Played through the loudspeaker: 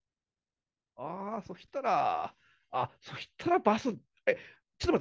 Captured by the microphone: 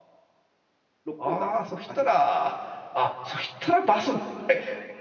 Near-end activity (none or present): present